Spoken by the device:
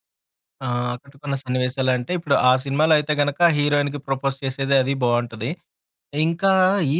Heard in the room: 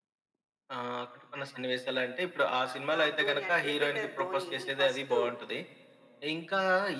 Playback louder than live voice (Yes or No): Yes